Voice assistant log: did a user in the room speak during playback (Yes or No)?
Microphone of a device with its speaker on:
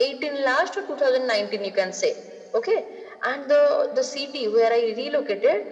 No